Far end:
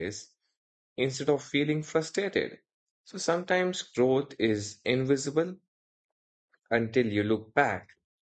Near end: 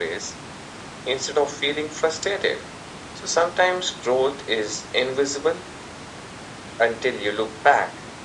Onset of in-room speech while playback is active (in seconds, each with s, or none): none